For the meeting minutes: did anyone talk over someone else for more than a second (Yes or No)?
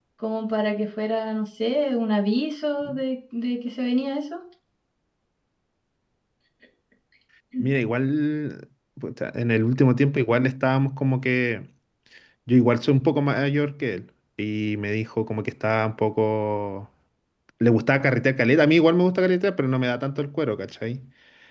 No